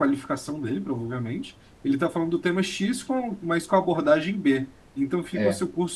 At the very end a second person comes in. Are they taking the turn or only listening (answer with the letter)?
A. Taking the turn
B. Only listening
B